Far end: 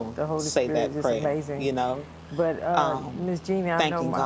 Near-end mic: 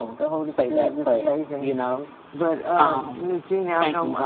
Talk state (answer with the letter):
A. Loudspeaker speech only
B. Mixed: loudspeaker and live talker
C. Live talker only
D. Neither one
A